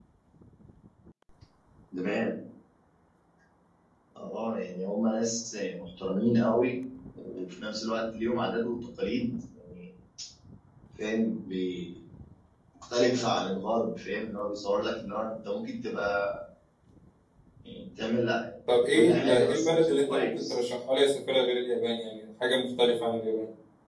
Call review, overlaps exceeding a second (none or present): present